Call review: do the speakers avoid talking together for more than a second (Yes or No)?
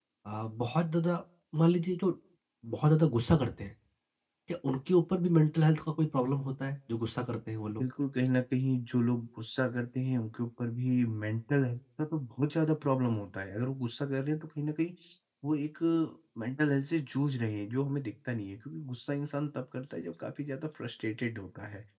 Yes